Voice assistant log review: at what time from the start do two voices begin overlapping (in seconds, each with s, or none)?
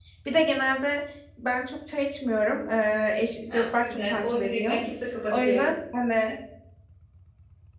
3.5 s